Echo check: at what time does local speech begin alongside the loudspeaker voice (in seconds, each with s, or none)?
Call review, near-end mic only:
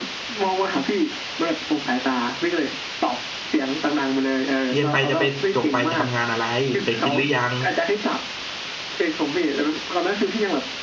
4.7 s